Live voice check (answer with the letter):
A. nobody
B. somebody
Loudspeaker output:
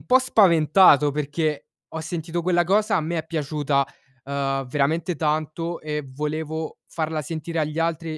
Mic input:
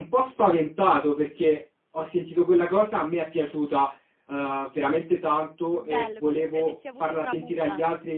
B